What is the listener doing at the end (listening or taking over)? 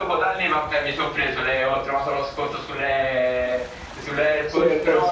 listening